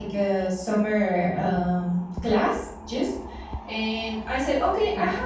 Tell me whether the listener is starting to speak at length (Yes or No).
No